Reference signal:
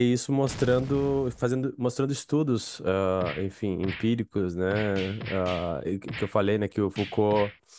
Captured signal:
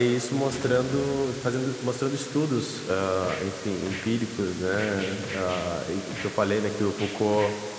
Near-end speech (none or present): none